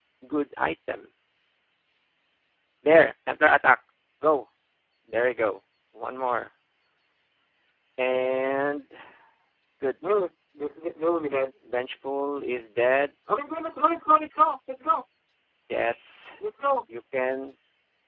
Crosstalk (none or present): none